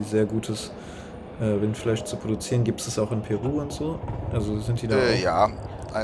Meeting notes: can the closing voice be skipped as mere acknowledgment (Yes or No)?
No